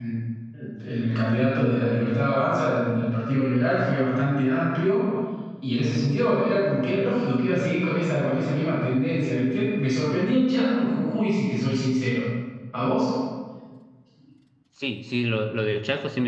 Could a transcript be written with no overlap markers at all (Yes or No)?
Yes